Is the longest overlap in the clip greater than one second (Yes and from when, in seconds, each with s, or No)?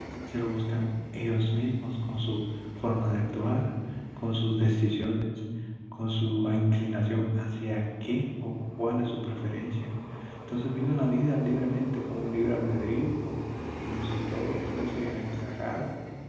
No